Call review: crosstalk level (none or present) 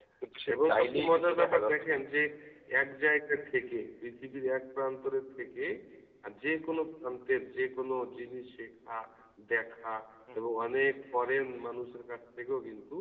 present